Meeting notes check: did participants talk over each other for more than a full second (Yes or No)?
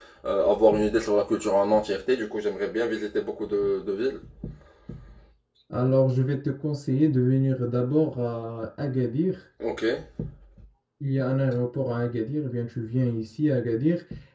No